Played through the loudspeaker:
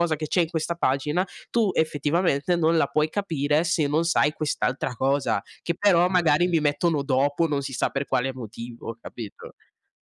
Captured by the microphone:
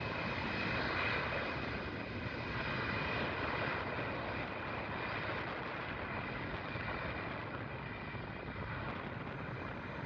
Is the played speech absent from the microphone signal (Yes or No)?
Yes